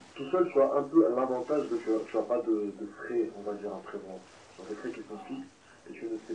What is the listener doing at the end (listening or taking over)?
listening